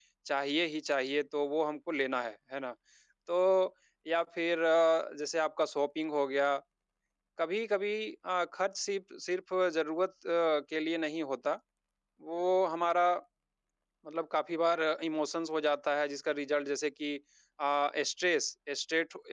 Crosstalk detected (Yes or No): No